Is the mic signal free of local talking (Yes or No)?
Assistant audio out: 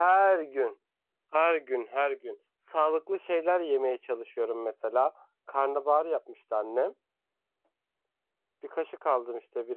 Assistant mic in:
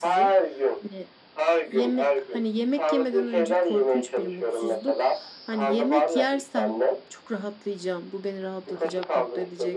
No